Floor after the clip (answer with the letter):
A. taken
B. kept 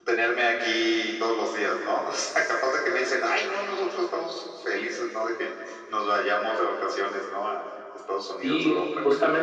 A